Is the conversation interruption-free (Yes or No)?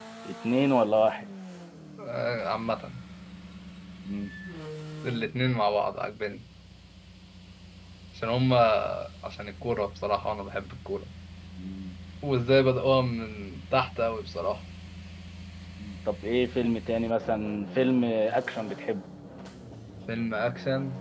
Yes